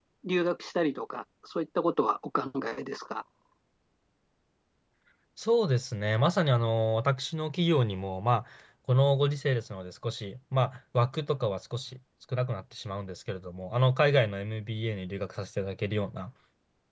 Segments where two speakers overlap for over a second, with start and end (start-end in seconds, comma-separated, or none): none